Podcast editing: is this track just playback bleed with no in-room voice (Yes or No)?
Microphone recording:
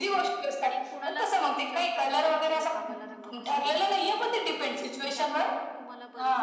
No